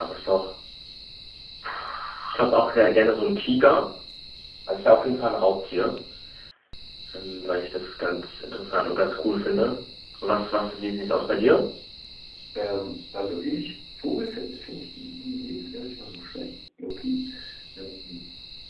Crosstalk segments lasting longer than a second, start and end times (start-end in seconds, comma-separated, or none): none